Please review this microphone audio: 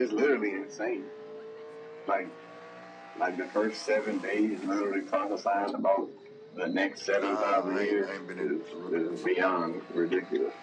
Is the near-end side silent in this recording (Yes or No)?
No